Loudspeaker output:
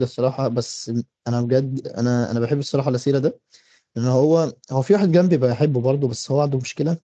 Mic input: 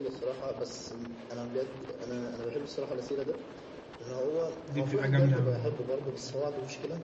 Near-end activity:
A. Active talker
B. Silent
A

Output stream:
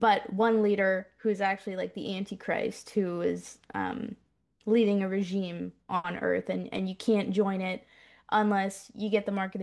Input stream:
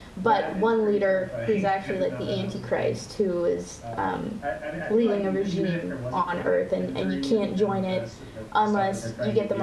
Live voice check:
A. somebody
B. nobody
A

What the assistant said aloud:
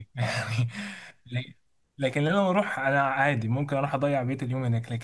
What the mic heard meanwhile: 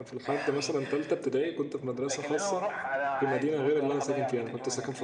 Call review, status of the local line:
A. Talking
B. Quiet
A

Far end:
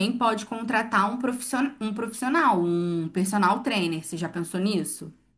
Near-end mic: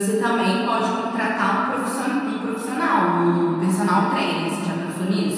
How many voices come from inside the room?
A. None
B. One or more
A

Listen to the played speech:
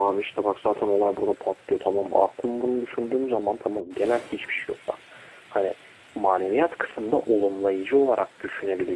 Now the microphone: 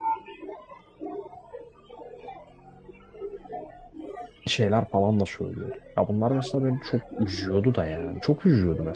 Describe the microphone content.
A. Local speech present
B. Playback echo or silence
A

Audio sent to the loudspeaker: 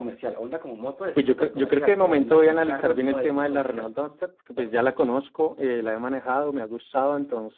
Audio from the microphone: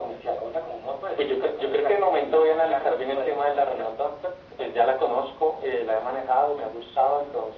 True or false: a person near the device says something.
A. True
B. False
B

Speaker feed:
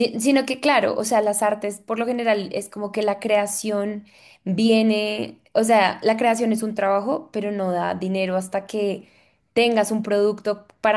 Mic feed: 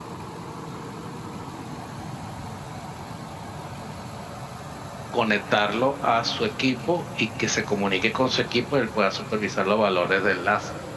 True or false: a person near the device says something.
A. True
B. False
A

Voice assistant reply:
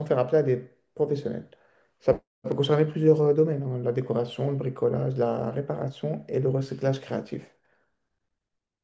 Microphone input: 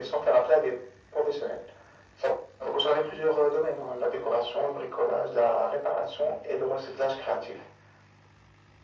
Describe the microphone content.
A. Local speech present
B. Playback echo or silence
B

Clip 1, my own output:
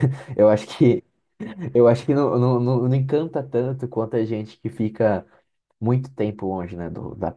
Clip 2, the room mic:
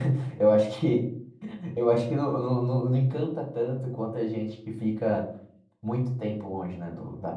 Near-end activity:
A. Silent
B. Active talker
A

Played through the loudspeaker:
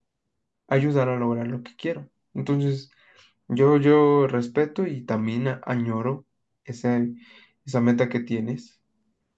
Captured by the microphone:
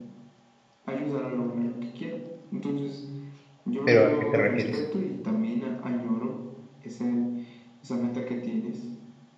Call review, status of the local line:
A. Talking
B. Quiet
A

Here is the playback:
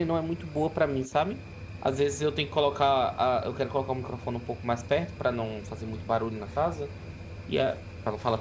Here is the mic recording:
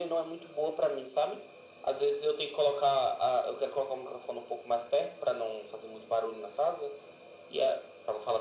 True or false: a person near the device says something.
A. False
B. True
A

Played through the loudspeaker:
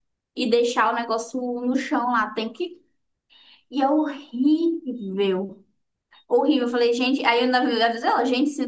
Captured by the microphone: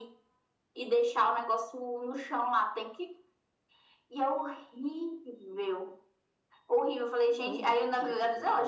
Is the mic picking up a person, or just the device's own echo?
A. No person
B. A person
B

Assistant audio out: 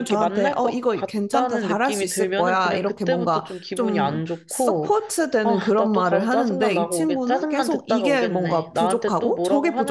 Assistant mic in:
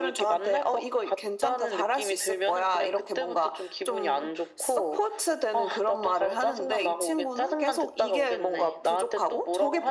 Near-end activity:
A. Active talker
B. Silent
B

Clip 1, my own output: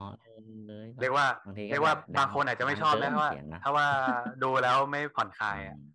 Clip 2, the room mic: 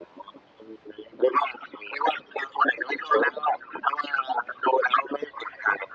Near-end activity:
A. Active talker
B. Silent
B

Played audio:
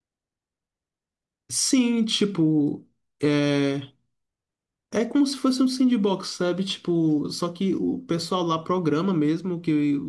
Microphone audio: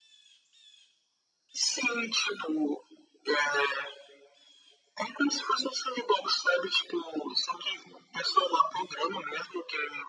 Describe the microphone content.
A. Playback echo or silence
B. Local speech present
A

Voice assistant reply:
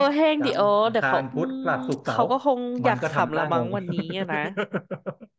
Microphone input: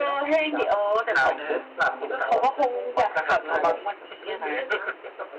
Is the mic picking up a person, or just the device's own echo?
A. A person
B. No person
A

